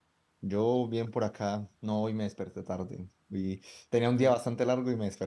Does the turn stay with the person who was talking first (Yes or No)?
Yes